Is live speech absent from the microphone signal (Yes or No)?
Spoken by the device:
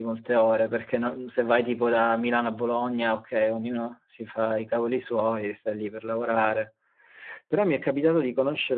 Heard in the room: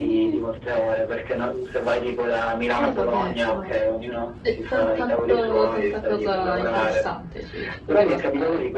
No